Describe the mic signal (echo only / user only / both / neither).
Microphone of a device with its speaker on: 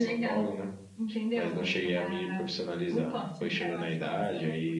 both